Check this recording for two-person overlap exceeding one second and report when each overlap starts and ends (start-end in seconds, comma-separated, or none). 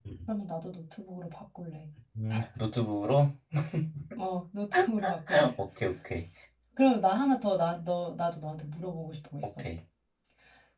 none